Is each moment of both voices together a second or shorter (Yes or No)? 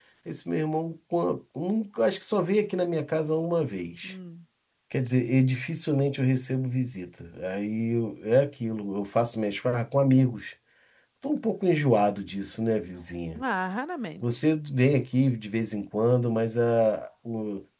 Yes